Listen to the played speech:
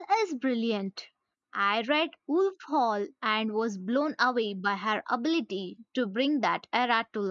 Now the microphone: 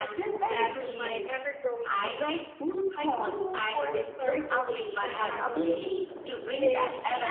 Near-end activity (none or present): present